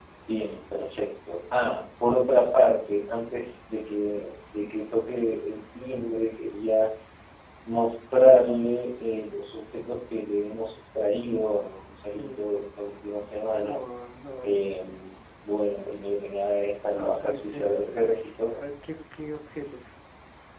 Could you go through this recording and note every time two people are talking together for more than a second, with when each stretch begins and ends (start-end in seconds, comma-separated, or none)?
16.8-18.6